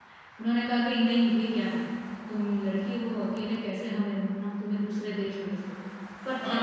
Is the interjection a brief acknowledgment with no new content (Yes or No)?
No